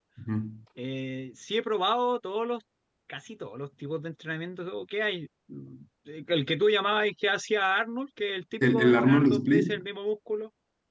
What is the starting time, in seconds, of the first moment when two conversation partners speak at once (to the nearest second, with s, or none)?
9 s